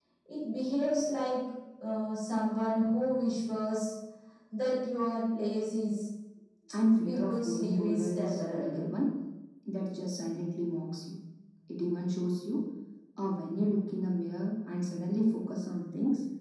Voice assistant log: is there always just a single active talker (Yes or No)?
No